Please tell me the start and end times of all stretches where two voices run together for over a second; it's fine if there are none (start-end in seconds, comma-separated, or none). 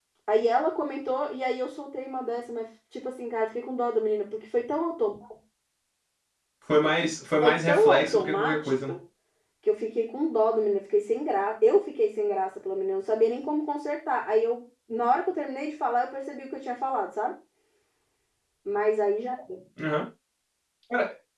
7.4-9.0